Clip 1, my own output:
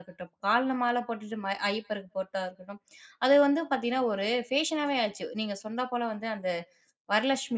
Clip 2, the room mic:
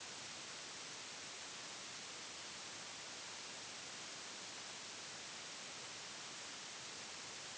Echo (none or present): none